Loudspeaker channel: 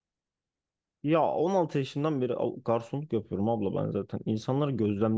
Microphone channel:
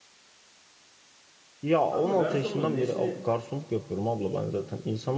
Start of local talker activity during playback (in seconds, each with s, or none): 1.9 s